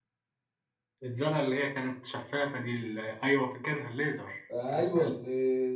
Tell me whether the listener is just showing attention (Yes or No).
No